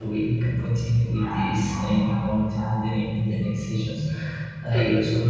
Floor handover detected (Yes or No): No